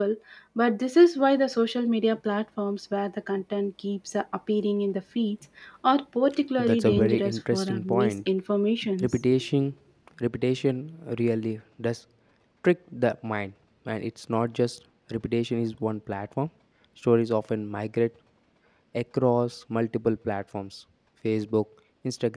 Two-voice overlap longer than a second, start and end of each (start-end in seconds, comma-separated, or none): 6.6-8.3